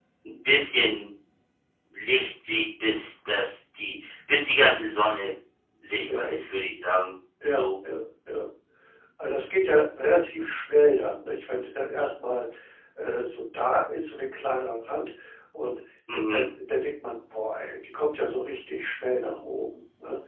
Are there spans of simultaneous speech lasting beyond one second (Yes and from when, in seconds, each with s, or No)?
No